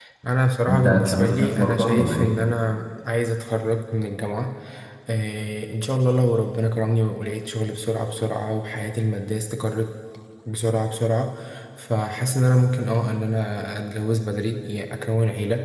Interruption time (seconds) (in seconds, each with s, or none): 0.7 s